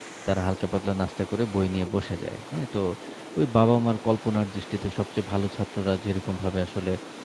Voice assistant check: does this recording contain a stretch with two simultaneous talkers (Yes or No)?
No